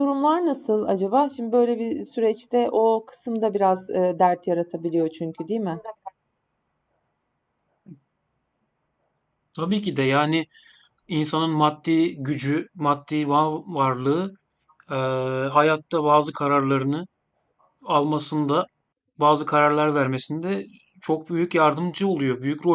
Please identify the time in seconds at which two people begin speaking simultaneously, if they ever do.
none

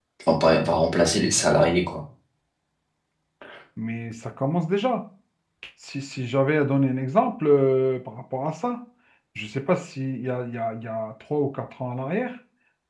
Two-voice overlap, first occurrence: none

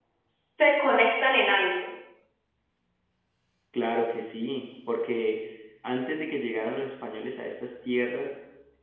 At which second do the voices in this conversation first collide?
none

